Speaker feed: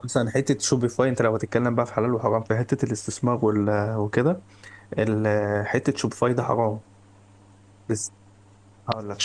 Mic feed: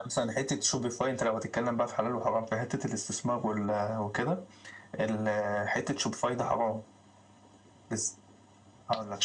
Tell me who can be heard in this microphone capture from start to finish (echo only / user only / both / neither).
echo only